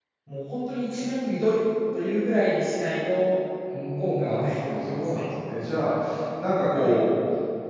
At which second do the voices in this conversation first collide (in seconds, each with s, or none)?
4.0 s